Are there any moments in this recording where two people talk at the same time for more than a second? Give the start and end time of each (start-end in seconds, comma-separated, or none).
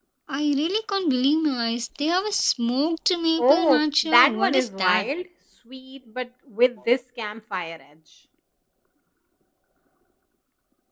3.4-5.1